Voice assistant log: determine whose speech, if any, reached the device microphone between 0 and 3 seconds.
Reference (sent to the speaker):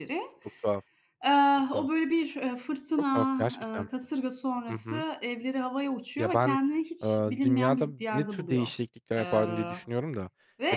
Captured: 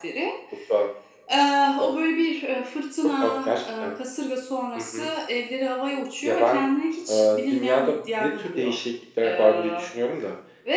echo only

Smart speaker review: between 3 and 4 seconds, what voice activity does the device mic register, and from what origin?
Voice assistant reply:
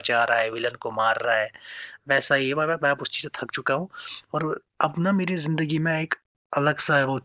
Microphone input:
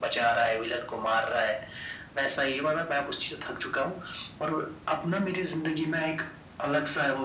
echo only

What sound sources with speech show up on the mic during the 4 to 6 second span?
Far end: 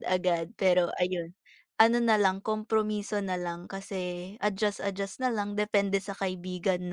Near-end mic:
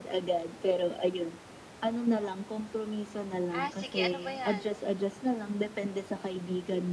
both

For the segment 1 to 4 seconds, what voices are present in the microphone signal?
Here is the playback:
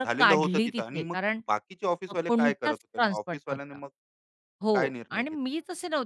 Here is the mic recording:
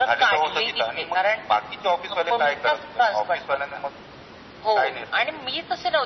echo only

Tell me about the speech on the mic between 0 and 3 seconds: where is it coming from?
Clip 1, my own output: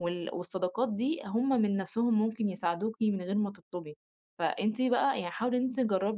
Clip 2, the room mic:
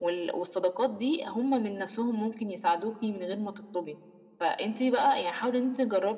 echo only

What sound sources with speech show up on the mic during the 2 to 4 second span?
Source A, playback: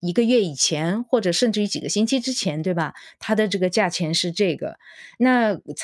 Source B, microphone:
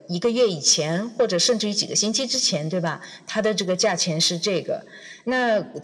echo only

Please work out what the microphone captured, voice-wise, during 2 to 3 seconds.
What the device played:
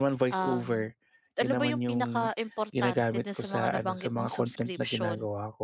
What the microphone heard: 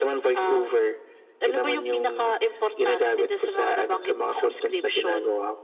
echo only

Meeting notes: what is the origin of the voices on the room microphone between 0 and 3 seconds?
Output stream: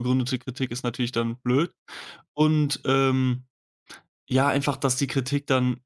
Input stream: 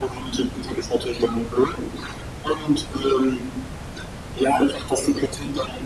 echo only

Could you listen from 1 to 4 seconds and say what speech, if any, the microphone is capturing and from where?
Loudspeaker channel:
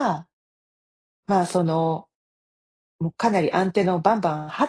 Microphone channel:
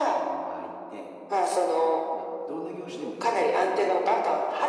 both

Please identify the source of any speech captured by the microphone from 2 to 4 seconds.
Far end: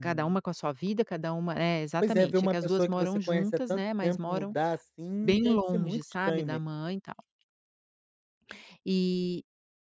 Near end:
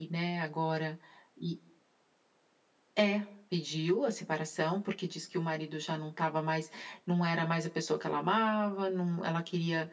user only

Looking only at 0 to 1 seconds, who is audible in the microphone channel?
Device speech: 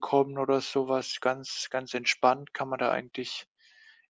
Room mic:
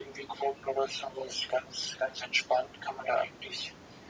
echo only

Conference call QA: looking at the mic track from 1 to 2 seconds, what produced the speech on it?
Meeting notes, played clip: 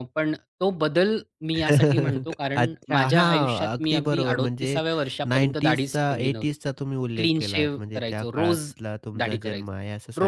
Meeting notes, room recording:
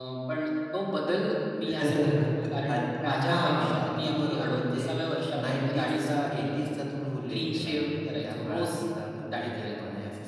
echo only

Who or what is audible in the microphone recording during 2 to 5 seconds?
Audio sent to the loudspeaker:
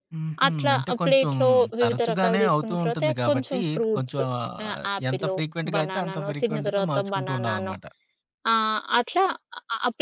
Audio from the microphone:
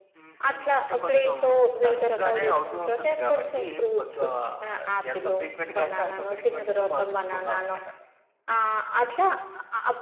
echo only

